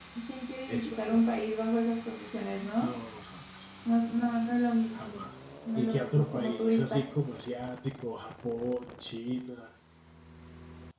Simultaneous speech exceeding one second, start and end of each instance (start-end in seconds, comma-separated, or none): 5.8-7.0